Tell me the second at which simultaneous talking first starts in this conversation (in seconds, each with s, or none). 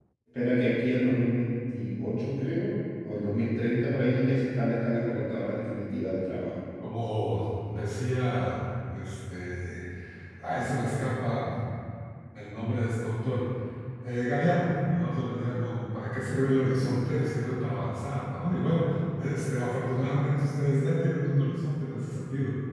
none